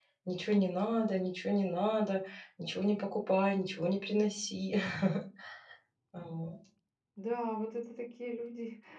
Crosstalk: none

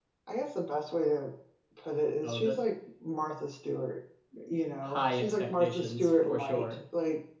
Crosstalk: present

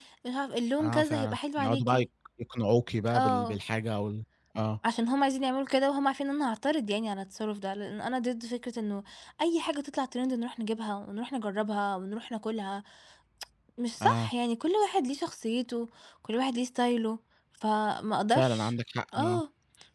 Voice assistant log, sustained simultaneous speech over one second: present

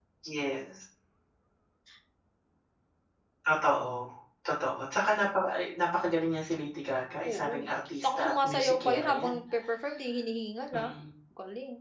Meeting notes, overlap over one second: present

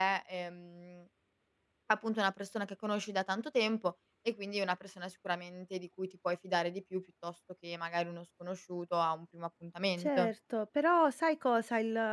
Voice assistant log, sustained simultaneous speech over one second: none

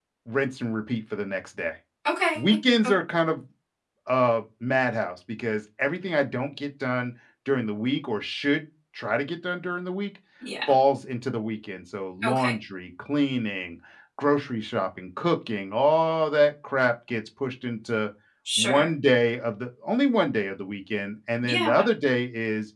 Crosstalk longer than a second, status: none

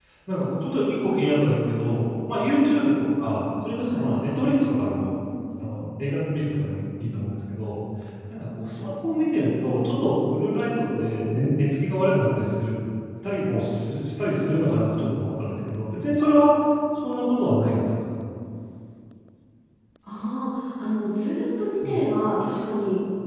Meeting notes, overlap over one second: none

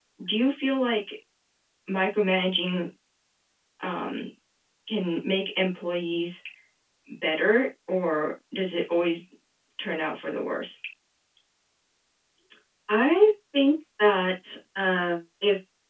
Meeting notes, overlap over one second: none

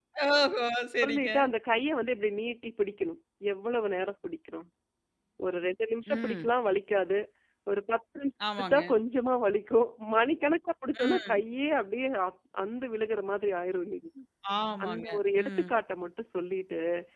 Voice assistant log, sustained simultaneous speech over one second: none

